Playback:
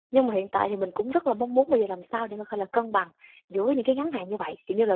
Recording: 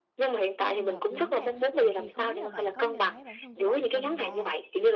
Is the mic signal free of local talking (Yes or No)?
No